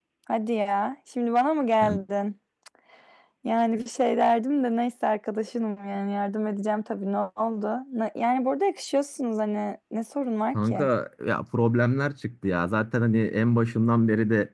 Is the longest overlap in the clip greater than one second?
No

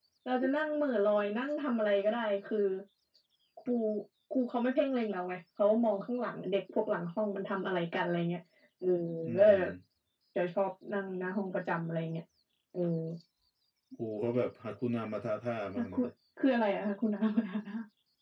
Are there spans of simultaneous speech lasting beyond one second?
No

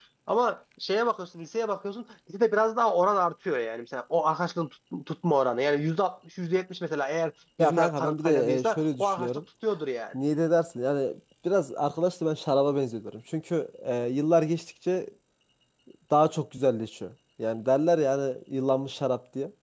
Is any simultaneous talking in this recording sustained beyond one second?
Yes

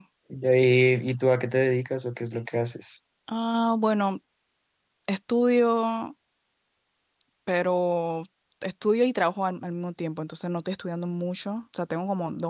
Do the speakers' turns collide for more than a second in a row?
No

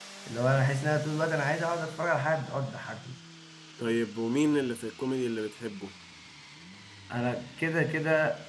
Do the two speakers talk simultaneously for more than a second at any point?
No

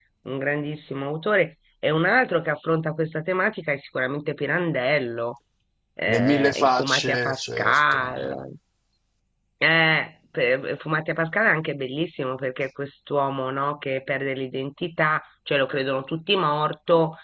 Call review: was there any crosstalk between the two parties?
Yes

